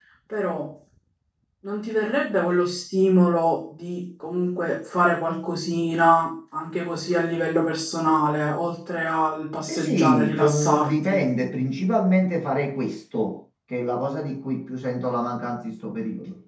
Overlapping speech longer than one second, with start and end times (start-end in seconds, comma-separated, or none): 9.7-11.2